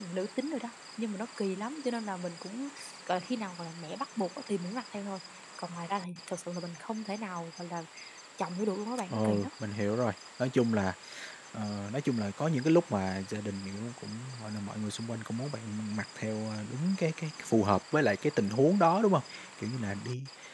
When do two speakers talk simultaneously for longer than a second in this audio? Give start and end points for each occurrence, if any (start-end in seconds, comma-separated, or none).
none